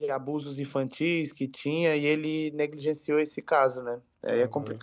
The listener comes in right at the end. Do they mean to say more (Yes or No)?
Yes